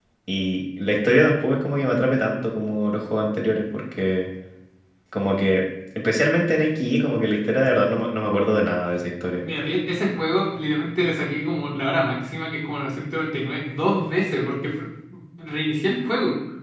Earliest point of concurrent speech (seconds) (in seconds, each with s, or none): none